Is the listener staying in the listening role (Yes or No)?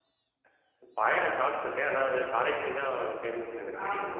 No